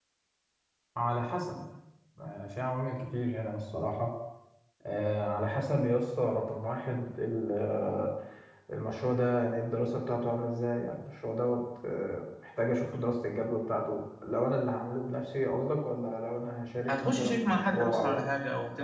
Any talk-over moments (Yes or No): Yes